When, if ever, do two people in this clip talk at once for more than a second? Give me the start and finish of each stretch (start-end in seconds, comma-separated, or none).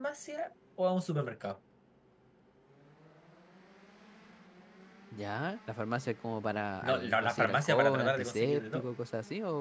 6.8-8.8